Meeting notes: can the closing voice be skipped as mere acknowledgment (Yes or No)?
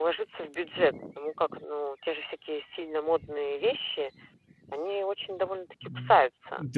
No